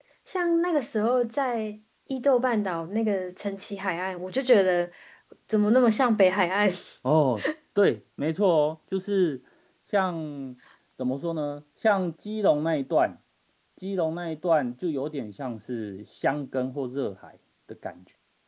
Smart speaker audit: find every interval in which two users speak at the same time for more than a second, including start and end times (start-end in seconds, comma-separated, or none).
none